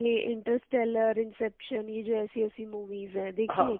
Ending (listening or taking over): taking over